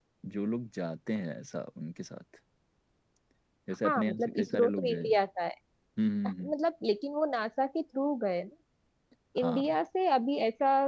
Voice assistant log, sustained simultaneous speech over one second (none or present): present